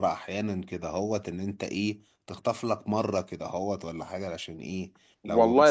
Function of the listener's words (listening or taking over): taking over